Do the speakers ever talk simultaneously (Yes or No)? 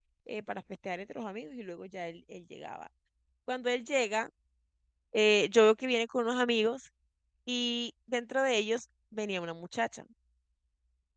No